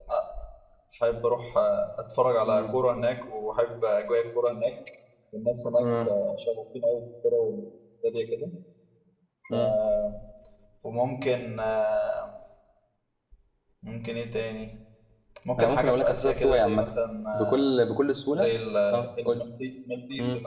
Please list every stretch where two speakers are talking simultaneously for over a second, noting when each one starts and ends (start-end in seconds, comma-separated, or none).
15.6-16.9